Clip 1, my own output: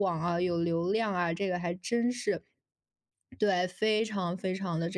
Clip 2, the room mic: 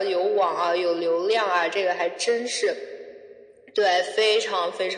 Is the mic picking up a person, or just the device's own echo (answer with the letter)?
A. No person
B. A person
A